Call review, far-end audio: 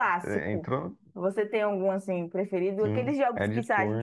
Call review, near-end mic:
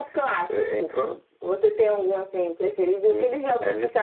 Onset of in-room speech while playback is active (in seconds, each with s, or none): none